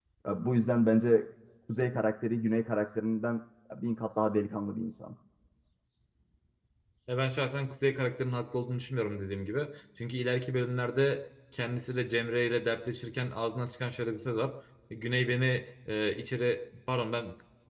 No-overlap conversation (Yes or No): Yes